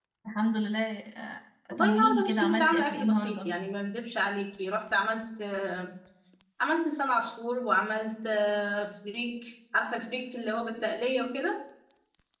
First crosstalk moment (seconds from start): 2 s

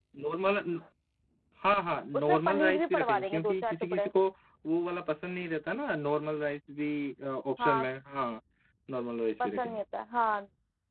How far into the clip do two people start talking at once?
2 s

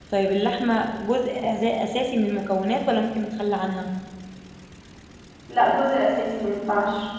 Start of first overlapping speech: none

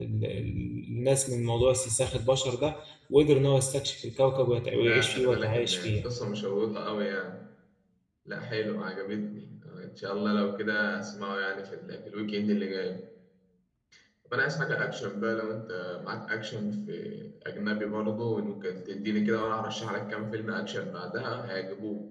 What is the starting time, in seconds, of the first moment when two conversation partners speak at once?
5 s

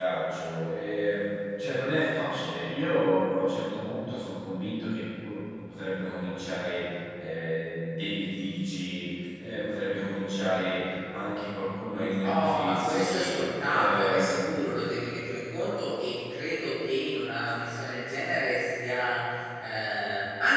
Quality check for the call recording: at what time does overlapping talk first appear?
12 s

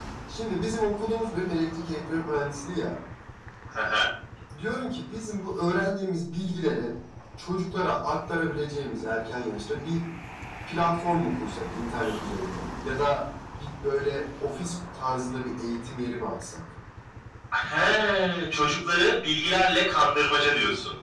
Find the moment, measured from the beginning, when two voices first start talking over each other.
none

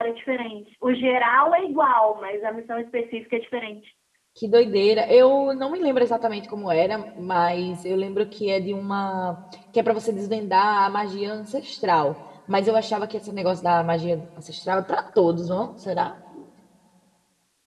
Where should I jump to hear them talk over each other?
none

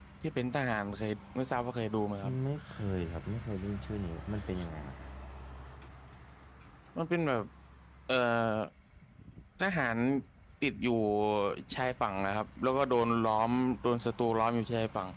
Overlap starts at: none

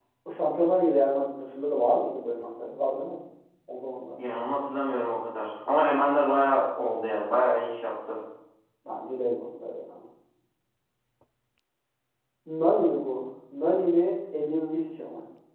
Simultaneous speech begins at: none

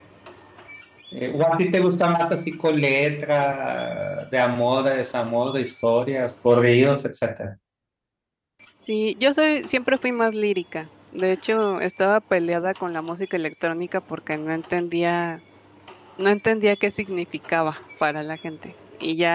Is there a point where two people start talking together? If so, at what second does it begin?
none

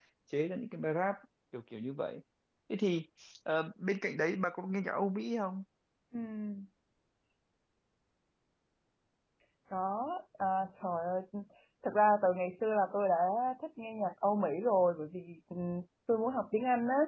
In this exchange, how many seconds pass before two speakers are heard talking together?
none

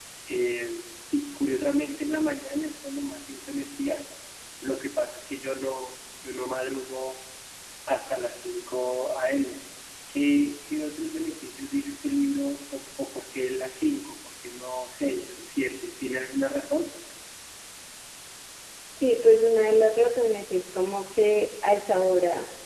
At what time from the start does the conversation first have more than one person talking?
none

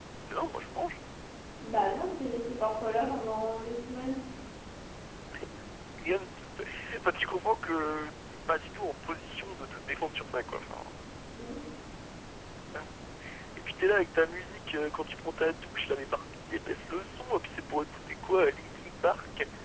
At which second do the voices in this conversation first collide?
none

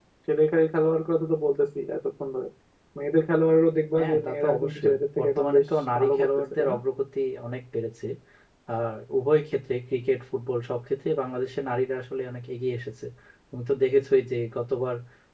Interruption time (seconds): 4 s

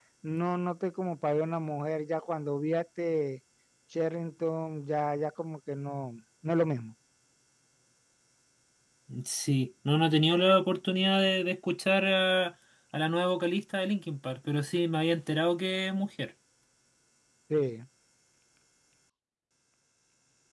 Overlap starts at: none

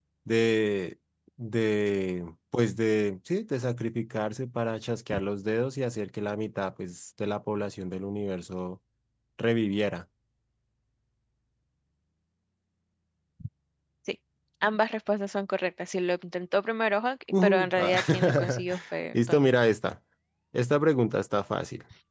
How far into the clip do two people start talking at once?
17 s

